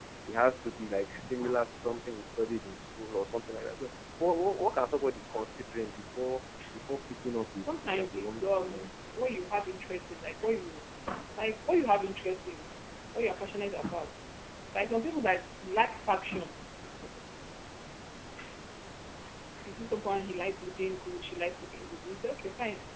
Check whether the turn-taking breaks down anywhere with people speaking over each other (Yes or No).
Yes